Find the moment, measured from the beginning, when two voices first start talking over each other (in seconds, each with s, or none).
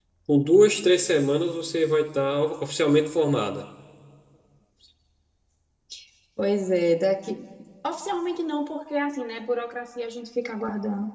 none